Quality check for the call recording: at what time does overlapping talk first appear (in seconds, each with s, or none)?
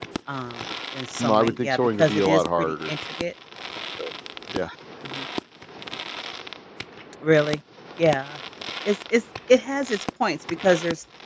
1.2 s